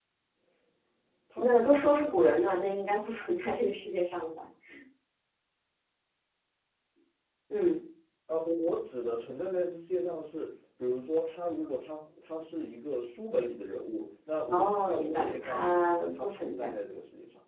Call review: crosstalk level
present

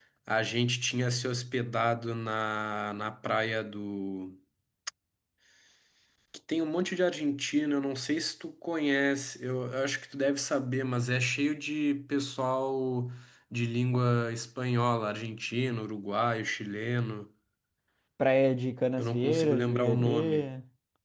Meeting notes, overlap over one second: present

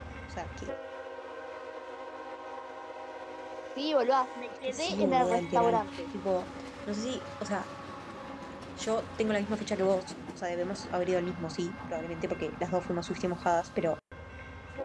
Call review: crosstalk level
present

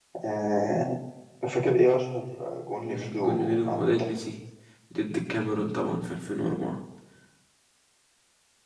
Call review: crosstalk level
present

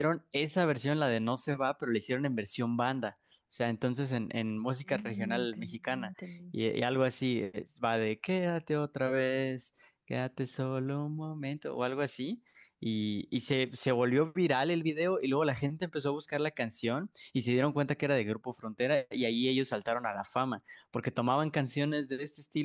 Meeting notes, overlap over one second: present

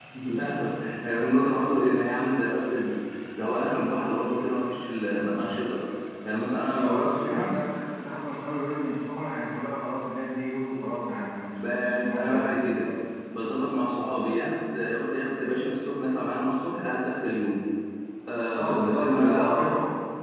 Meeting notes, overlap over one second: present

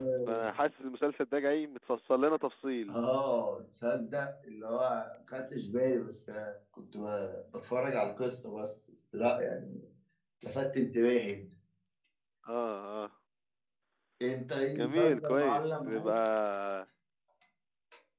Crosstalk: present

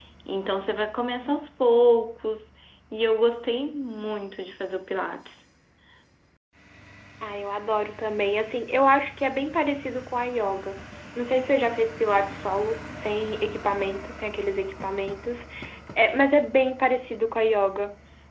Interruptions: none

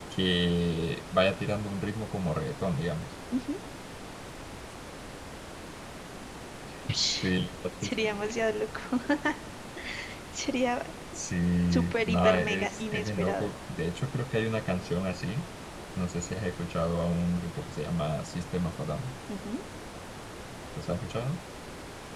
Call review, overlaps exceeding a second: present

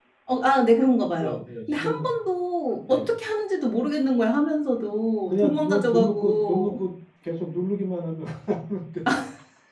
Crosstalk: present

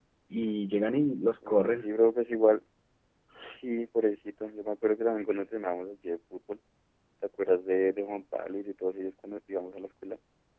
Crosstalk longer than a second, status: none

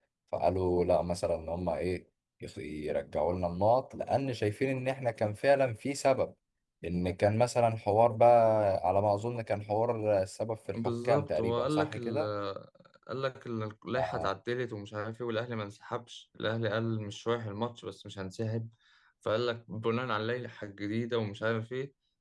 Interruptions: present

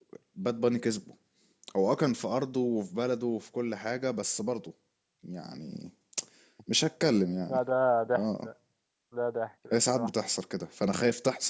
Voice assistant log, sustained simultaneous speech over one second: none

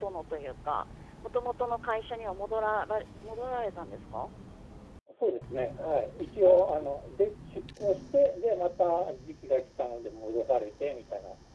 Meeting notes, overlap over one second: none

